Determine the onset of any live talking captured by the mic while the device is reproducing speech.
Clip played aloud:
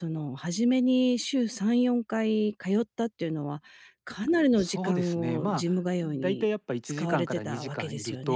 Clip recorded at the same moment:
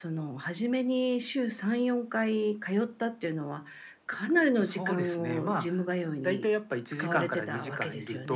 none

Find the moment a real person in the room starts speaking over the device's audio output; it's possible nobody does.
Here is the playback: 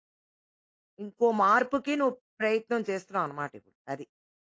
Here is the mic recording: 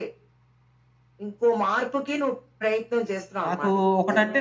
3 s

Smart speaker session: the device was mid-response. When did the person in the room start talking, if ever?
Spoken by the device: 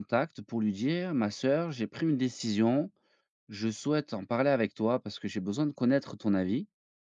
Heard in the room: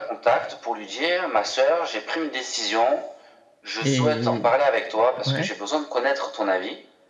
4 s

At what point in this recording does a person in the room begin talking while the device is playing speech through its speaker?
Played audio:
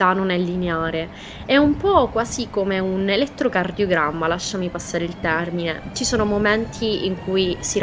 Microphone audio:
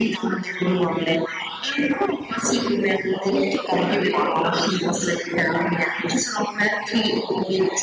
none

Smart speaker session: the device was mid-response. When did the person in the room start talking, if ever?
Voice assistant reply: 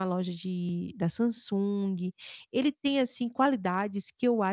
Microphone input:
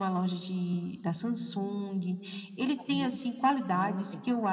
3 s

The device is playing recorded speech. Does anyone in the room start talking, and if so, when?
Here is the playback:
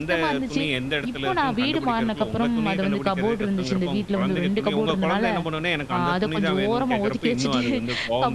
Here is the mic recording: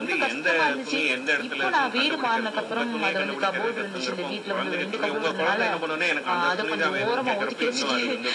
7 s

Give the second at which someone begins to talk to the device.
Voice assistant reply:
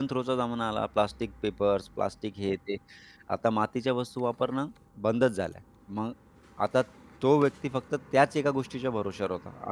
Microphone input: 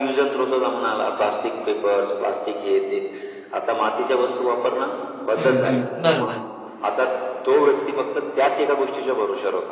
5 s

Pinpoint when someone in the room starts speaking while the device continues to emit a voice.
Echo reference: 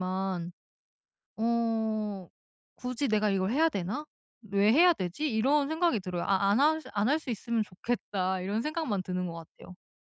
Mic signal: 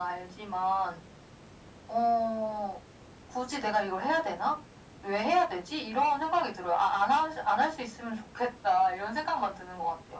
none

